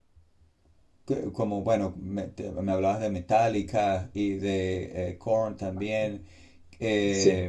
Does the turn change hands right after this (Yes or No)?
Yes